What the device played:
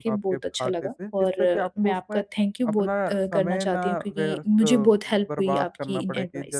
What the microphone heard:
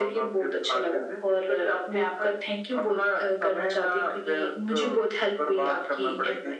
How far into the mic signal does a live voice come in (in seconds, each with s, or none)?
none